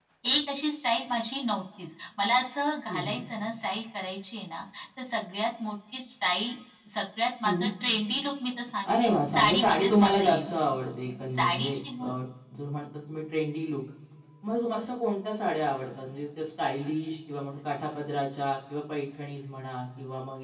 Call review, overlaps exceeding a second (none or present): present